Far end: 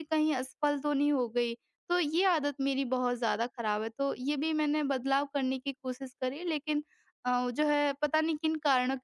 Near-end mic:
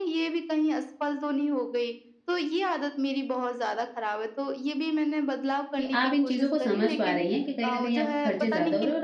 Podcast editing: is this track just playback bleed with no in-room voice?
No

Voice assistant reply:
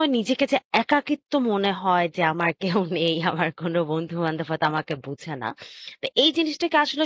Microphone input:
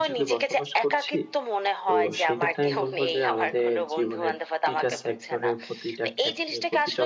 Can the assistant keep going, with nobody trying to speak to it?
No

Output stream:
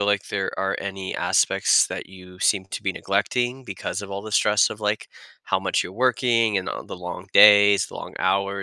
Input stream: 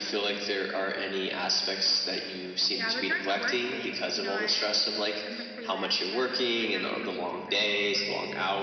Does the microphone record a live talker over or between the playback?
Yes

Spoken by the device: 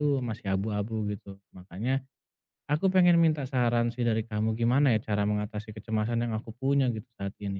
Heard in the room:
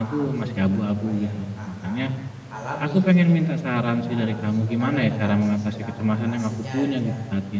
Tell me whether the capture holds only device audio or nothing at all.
No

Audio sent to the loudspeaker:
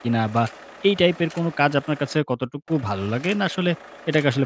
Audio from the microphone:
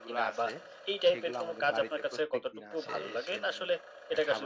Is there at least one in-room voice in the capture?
Yes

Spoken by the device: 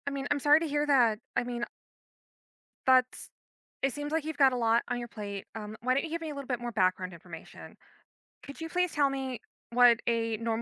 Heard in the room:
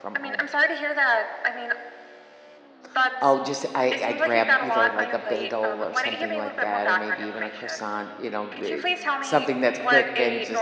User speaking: Yes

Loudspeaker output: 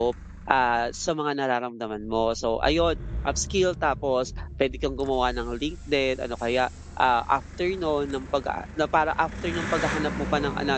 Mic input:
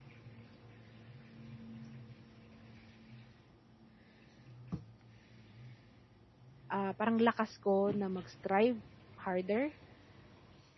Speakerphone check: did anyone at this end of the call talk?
Yes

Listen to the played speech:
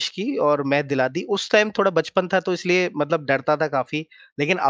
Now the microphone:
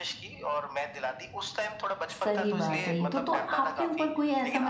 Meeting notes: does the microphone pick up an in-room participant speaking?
Yes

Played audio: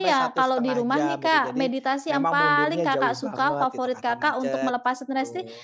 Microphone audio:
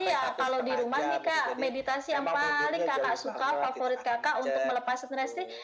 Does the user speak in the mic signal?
No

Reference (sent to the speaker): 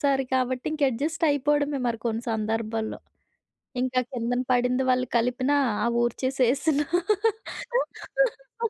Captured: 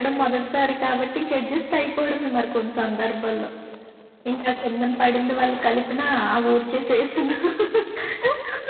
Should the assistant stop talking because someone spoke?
No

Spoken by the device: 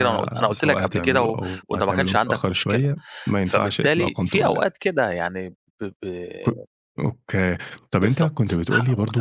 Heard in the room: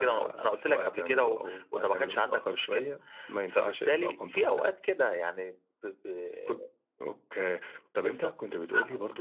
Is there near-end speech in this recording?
No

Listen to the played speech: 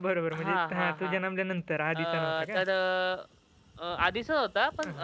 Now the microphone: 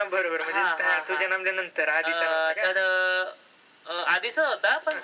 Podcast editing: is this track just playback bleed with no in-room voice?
Yes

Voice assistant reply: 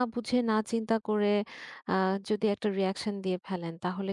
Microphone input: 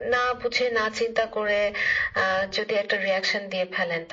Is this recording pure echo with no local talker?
Yes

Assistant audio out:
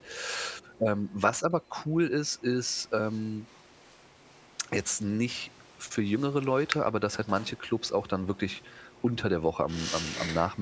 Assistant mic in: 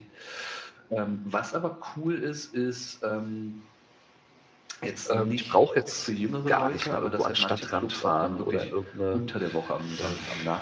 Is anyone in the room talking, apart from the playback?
Yes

